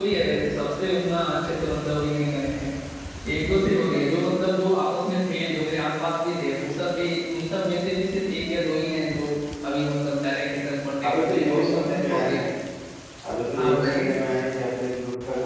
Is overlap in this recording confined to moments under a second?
No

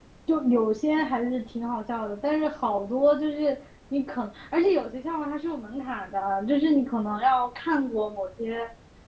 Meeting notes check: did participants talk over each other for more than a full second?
No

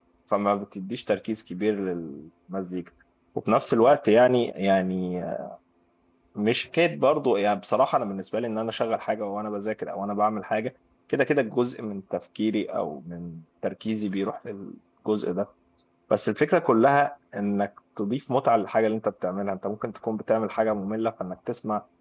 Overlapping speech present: No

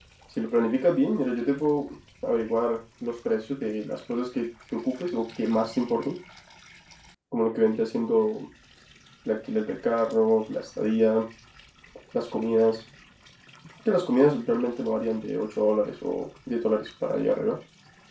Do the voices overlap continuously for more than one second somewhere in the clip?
No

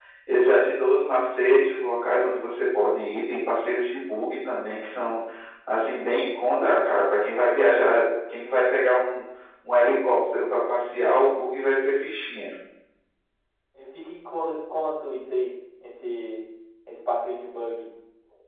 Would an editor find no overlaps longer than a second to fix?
Yes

